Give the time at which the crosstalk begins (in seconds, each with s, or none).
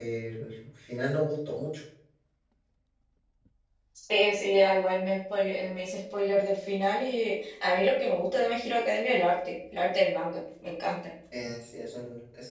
none